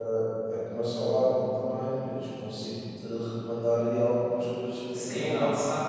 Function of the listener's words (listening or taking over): taking over